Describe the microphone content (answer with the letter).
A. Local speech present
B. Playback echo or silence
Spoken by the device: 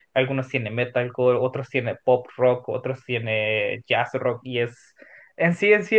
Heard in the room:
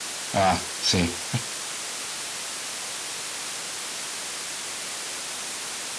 A